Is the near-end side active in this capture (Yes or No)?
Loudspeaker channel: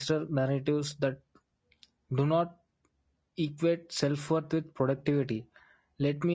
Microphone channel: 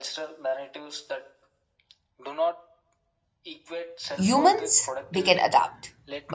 Yes